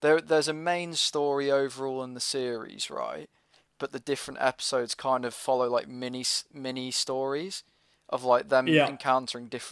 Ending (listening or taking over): listening